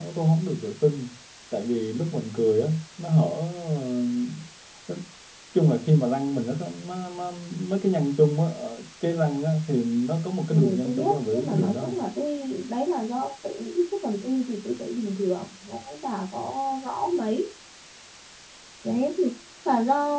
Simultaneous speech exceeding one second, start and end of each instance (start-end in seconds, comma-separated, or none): 10.5-12.0